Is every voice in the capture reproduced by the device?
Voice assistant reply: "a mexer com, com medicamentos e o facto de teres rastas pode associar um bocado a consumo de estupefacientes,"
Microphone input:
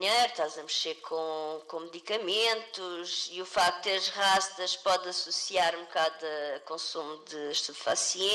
Yes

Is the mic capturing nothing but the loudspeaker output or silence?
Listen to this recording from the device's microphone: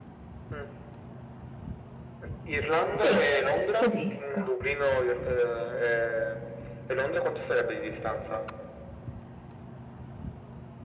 No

